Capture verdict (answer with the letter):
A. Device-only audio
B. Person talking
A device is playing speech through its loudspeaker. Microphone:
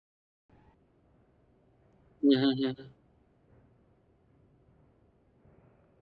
B